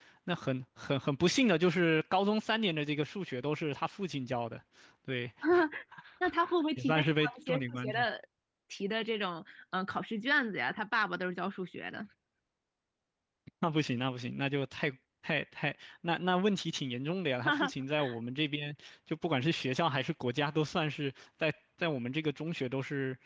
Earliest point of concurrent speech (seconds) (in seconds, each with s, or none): 6.8 s